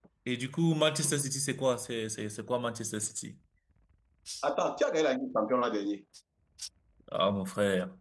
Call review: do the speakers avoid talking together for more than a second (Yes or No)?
Yes